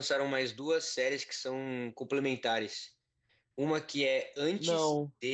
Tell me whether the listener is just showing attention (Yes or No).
Yes